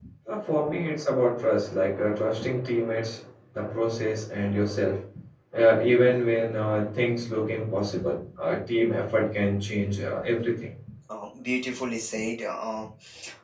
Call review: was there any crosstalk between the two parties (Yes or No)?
No